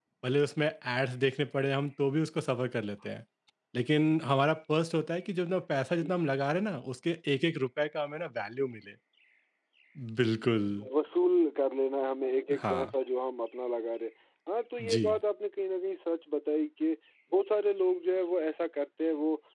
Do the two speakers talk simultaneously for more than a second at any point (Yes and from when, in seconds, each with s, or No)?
No